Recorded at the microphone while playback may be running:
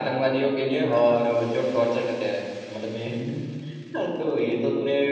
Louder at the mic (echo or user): echo